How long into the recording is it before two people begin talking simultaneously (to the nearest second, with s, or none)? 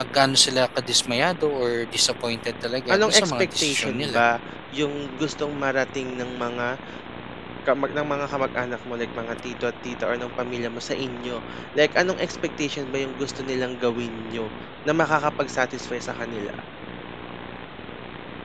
3 s